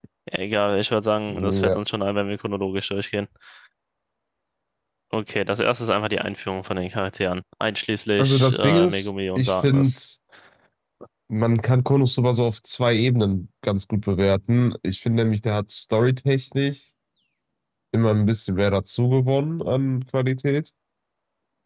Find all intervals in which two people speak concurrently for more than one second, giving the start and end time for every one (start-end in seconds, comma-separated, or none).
8.2-9.9